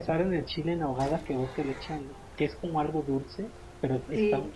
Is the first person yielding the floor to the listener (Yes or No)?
No